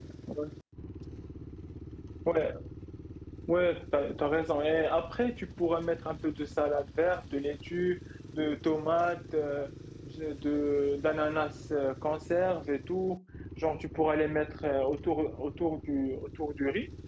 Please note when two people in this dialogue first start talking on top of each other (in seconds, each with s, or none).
none